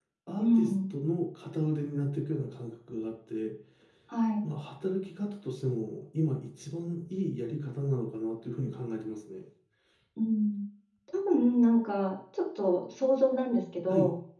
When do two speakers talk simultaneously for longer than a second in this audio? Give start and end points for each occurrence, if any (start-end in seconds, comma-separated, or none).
none